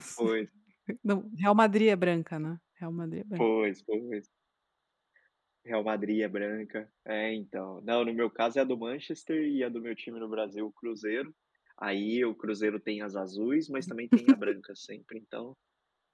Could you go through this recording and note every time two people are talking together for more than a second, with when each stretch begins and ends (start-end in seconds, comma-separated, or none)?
none